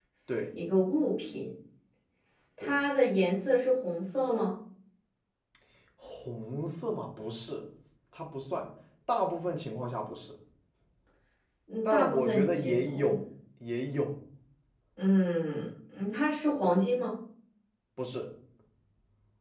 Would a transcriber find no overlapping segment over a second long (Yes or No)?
No